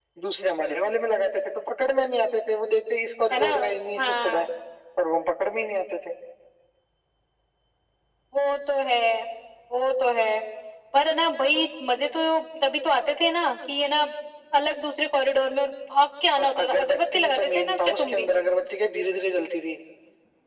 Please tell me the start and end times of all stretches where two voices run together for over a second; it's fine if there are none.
16.4-18.3

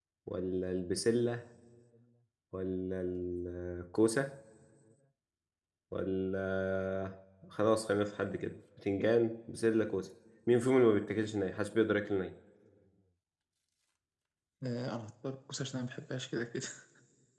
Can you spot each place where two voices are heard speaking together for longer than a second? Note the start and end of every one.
none

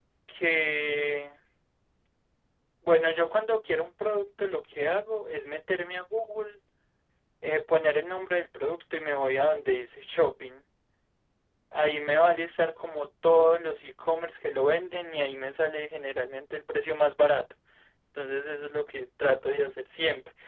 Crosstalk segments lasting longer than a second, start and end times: none

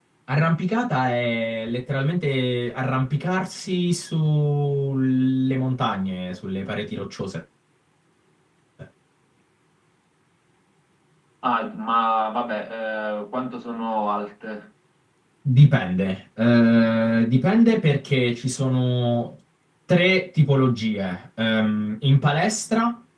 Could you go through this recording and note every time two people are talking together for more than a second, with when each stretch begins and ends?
none

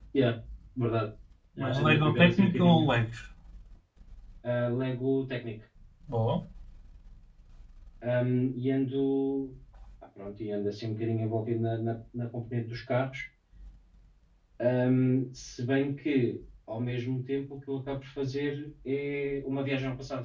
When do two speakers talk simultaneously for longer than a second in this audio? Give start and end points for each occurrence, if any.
1.6-2.9

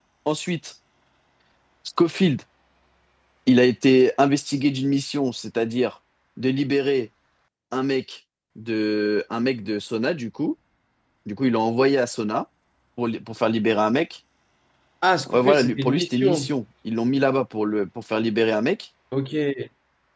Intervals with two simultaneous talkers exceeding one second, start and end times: 15.3-16.5

